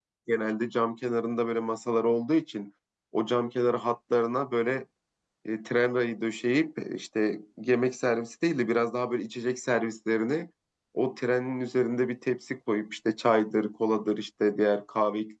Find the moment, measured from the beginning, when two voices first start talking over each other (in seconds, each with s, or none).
none